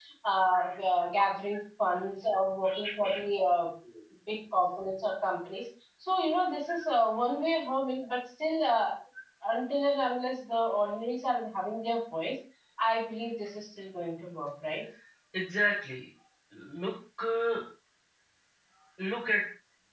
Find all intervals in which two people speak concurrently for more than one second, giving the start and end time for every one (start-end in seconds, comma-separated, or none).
none